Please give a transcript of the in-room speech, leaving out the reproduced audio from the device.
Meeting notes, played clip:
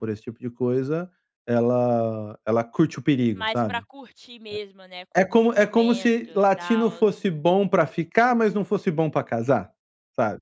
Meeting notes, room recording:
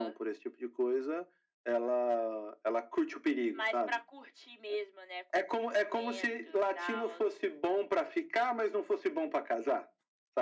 none

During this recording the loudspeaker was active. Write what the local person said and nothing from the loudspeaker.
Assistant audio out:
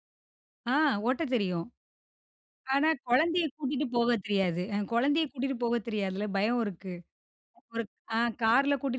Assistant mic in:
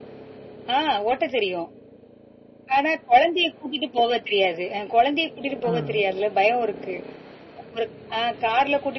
அ.

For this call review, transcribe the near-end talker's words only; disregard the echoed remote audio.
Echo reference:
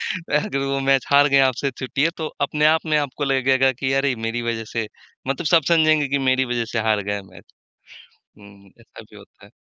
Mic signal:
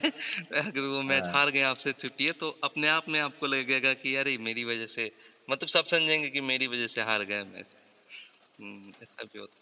हाँ।

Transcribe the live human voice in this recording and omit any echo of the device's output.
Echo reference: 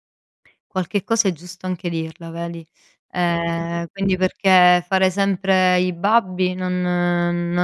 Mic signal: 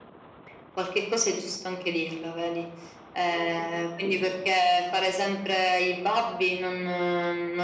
none

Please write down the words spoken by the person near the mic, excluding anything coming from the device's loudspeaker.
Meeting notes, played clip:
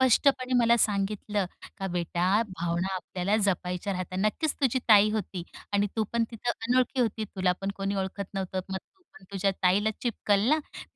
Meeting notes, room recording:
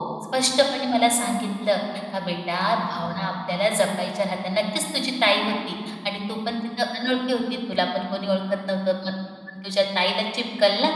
none

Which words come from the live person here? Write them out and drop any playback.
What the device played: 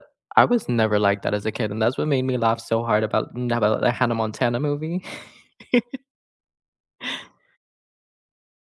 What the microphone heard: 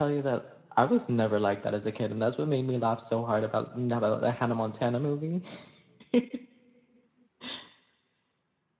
none

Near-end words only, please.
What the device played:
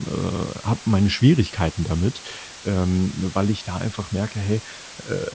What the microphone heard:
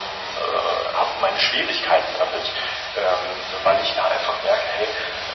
none

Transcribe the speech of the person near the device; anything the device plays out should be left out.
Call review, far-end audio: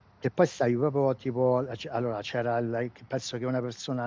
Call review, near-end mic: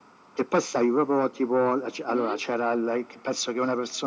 Mh.

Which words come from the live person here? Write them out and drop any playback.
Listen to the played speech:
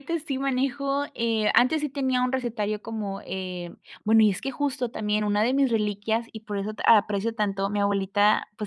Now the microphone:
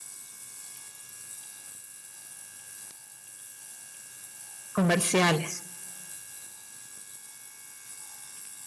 Comerciales.

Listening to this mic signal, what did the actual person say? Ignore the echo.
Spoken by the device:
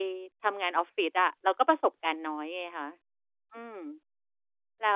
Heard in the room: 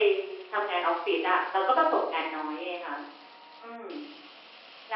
none

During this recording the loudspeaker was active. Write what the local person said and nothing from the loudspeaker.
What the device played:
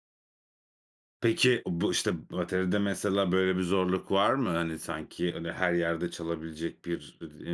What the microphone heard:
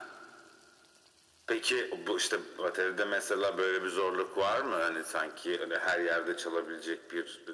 none

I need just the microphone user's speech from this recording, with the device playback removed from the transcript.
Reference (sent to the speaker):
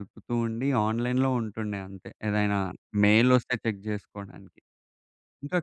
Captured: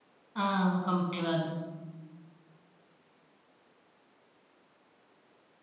ఆ! కంపెనీ వాళ్ళు.

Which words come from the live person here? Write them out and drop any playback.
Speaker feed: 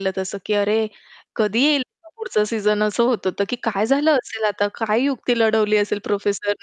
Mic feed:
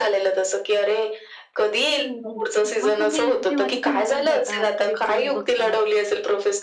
हं, हं. मग तुम्ही जेव्हा तिथे रमून जाता ती वेब सीरीज बघताना

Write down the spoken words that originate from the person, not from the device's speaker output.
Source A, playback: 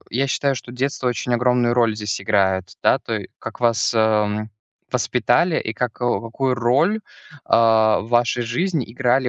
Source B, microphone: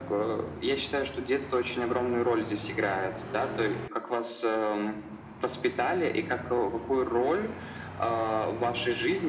none

